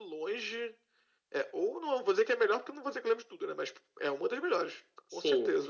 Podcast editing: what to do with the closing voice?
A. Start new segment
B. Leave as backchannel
A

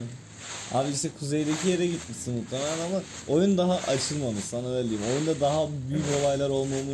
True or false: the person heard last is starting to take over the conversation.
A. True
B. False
B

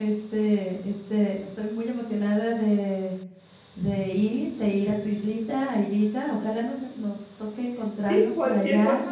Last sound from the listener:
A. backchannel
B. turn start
B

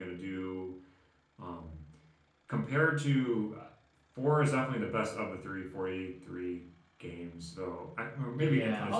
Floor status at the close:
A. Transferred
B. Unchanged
A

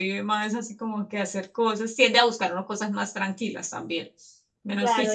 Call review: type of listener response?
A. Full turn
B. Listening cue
A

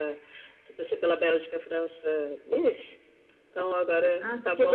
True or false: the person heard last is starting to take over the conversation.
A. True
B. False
A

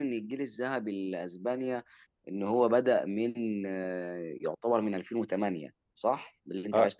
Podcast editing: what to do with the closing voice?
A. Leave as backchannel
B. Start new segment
B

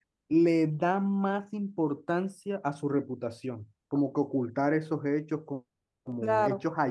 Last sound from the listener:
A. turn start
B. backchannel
B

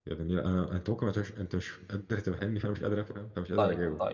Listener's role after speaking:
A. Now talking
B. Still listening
A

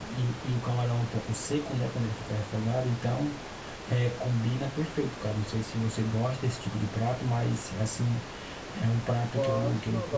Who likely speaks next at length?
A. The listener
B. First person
A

